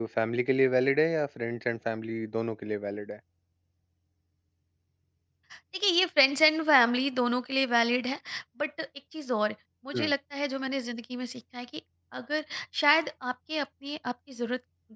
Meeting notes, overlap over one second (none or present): none